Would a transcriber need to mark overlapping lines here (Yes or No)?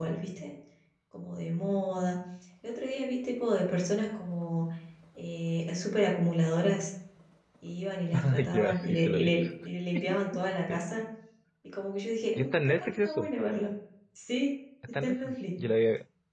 Yes